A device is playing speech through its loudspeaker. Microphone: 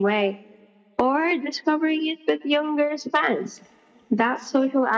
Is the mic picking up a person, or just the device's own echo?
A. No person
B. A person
A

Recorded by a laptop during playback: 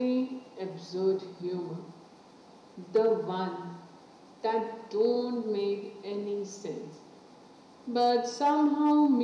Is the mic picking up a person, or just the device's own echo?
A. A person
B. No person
B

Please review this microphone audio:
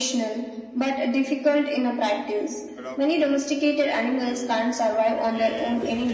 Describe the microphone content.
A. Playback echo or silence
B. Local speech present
B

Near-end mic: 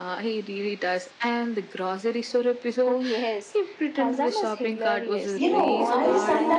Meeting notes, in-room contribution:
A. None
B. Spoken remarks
B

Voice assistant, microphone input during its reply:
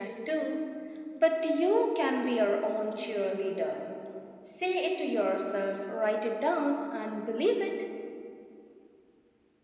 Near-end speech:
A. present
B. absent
B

